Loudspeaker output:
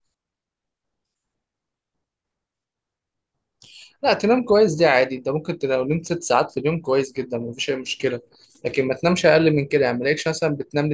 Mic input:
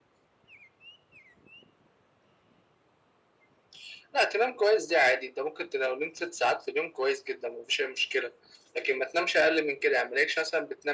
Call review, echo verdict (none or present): present